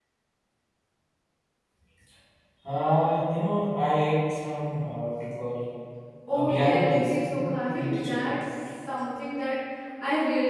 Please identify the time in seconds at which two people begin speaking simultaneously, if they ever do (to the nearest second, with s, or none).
6 s